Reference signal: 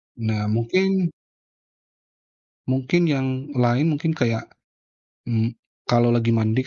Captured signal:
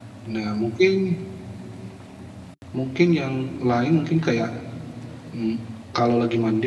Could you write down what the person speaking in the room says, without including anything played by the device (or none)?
none